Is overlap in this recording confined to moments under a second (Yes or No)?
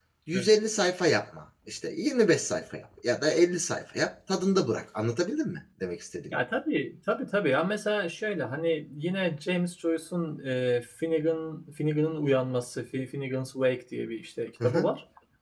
Yes